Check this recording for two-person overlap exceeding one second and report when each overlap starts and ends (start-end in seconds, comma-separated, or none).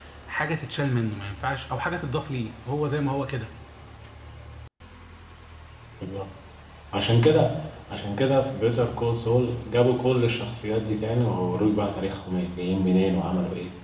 none